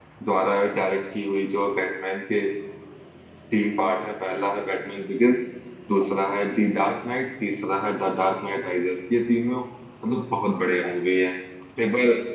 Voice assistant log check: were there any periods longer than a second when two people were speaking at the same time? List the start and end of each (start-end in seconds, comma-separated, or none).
none